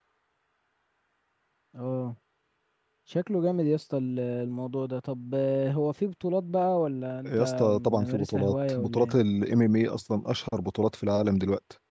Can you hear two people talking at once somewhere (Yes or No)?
Yes